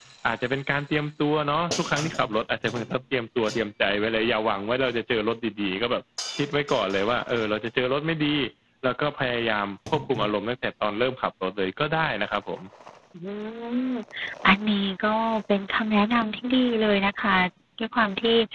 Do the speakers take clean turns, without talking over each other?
Yes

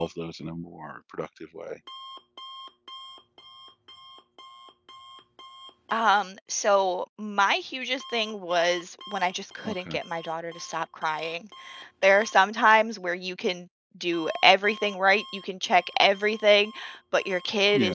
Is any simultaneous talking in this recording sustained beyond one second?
No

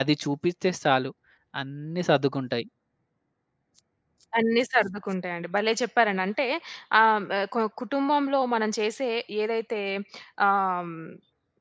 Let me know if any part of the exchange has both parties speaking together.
No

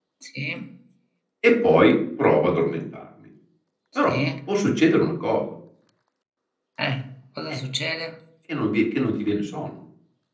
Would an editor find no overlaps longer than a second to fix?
Yes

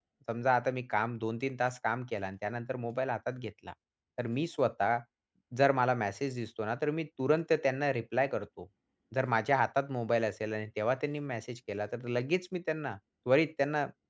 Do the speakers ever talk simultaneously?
No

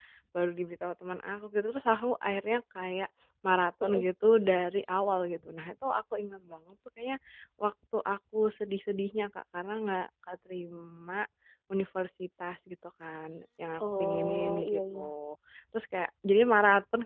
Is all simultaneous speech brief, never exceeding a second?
No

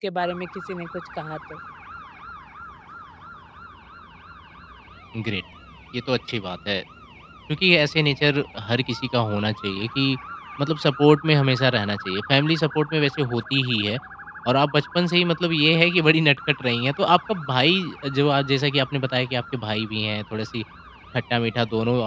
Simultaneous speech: No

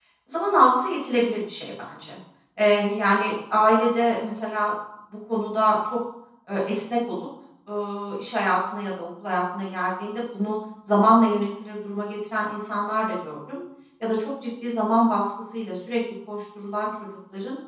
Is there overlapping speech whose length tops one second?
No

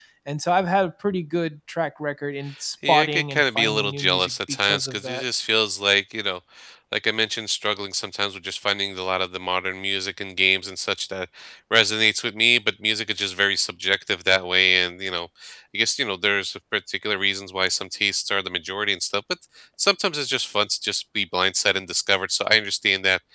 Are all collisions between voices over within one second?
No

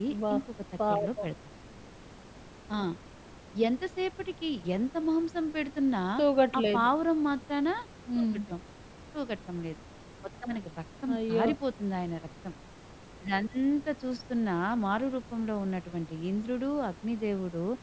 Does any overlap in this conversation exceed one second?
No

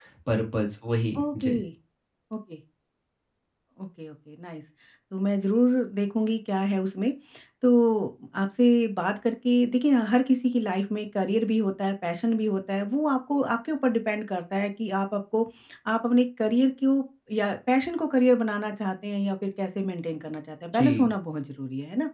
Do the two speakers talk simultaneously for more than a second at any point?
No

